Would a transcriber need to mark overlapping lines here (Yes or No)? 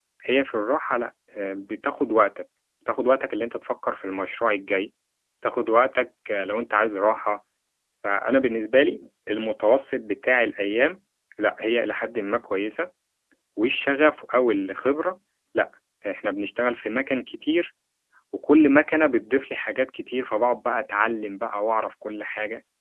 No